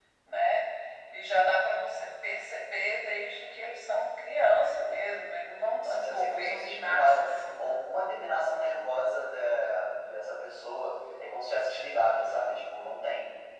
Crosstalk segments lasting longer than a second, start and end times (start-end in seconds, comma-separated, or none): 5.8-7.7